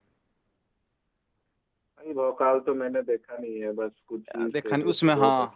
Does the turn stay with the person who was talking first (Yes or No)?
No